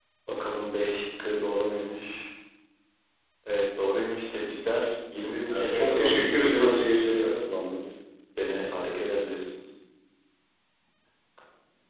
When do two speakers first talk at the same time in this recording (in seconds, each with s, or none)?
5.5 s